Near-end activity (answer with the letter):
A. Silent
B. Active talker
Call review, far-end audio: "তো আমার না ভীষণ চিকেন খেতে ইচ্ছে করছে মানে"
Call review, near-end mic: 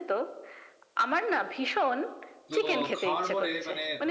B